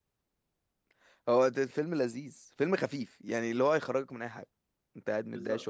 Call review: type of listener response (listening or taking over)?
taking over